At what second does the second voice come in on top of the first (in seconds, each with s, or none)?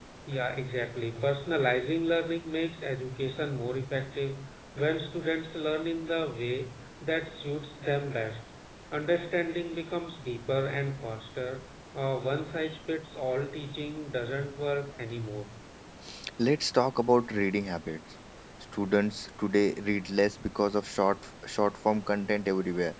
none